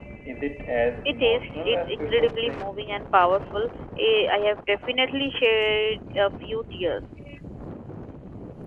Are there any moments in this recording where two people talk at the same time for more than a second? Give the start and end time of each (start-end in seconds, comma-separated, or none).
1.1-2.7